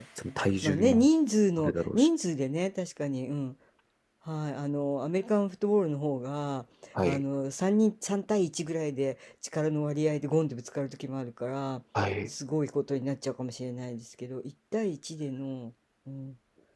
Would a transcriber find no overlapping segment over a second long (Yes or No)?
Yes